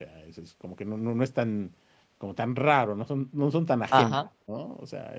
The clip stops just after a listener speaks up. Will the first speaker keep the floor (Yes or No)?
Yes